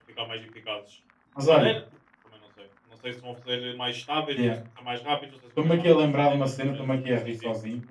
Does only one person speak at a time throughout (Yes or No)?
No